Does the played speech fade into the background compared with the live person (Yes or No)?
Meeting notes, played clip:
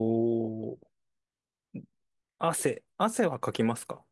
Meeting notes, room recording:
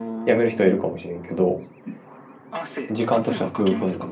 Yes